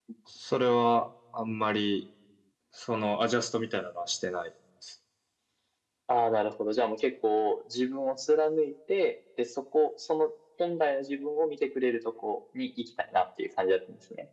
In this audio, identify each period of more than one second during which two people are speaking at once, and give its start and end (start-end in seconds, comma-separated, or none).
none